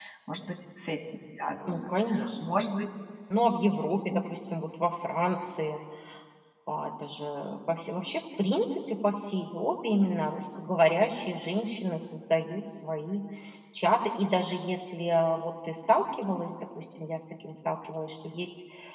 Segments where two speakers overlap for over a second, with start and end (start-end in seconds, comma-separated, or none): none